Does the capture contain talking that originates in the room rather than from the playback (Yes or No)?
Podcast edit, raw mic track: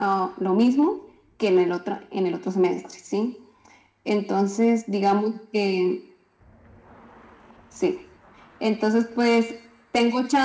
No